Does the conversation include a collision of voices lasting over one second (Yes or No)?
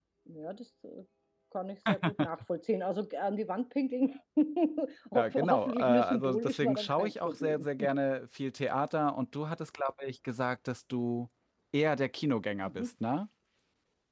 Yes